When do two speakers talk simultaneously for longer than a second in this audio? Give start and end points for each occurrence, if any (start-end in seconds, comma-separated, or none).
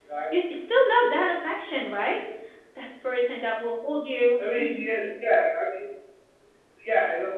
none